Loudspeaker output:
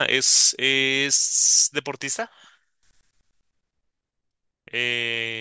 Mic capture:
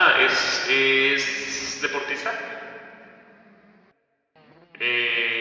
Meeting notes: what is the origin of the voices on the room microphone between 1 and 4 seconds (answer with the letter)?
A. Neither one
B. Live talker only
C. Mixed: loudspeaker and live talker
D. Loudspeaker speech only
D